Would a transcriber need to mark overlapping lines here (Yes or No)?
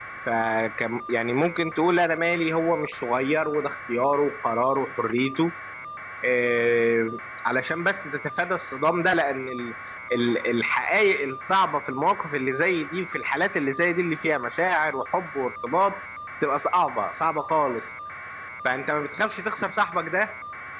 No